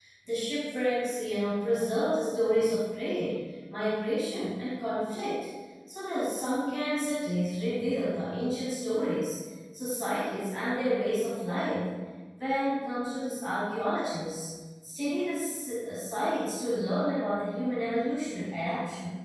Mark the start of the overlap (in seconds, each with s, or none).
none